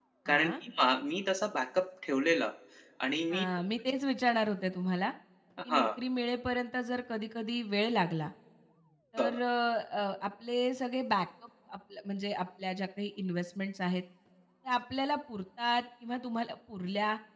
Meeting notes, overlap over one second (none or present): none